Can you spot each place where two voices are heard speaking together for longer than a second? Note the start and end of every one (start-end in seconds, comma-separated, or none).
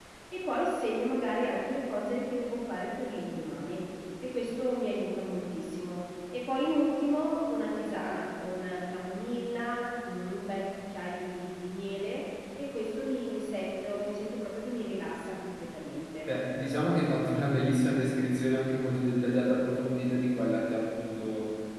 none